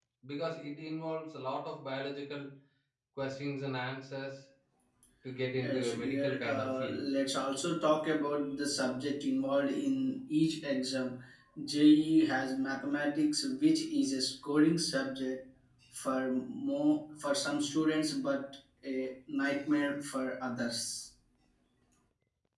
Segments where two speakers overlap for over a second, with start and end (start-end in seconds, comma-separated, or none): 5.6-7.0